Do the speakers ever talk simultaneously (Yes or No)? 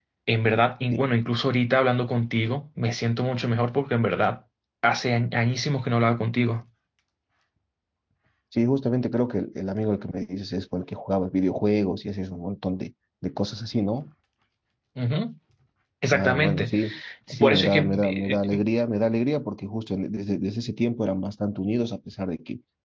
Yes